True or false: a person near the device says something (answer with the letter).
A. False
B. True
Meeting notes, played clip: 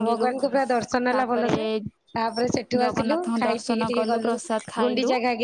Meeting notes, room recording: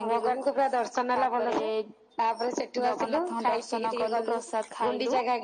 A